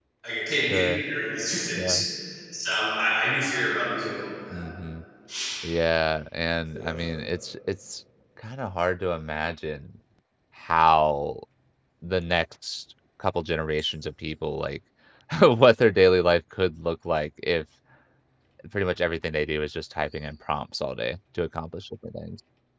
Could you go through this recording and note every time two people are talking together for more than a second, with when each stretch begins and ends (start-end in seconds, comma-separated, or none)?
none